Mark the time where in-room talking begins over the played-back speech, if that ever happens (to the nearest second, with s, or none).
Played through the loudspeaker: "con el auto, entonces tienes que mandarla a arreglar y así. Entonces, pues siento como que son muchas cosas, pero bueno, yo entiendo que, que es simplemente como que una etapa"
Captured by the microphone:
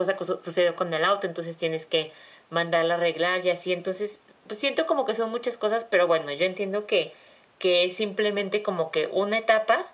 none